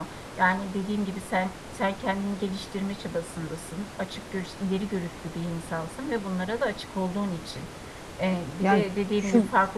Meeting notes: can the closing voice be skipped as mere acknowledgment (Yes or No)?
Yes